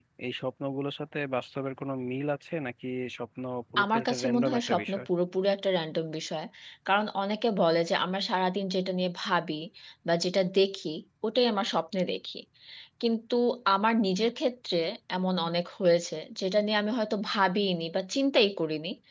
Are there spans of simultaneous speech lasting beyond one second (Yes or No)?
Yes